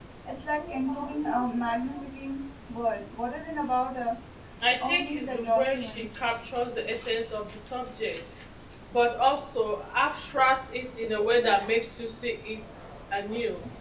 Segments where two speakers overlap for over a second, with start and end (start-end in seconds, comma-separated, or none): 4.8-6.0